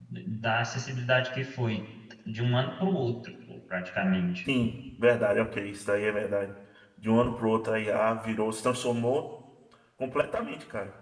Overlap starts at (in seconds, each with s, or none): none